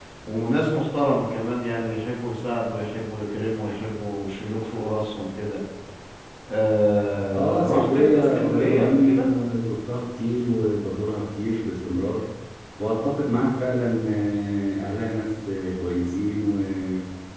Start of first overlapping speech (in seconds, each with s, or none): 7.3 s